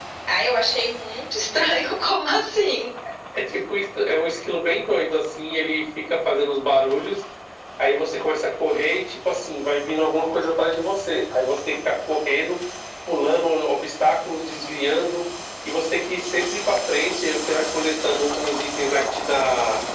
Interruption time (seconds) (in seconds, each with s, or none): none